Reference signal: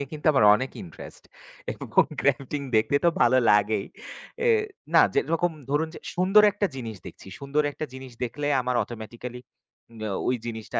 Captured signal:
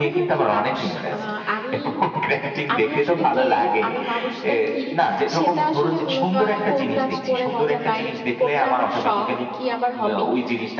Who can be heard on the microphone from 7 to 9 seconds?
both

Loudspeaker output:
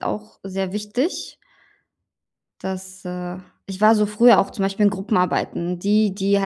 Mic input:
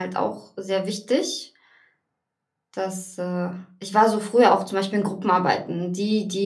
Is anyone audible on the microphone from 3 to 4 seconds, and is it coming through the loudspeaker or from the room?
echo only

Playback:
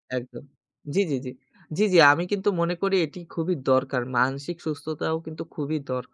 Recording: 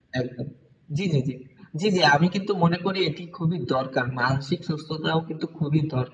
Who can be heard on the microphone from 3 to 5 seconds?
echo only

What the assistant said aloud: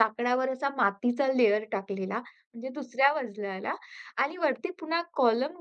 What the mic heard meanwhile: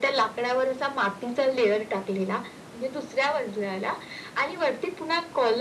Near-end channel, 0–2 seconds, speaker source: echo only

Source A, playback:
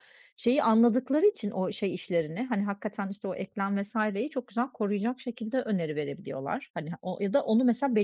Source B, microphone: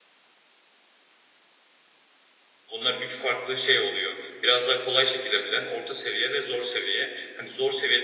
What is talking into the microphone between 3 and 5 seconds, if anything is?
user only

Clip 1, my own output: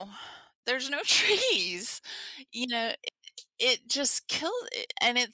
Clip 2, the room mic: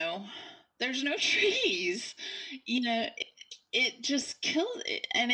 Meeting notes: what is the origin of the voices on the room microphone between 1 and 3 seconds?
echo only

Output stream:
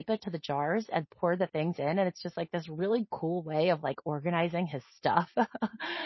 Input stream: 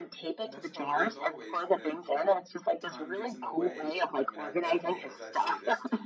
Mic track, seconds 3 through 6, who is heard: both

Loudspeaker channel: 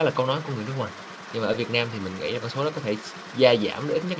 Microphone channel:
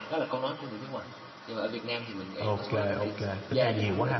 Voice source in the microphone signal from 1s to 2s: echo only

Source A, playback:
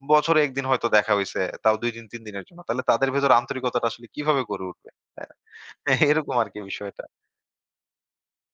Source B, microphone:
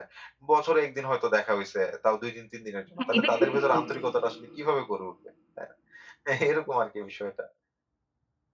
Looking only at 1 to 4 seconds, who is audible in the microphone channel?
both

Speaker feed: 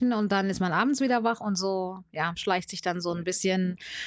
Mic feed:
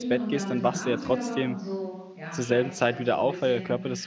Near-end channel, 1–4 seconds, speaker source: both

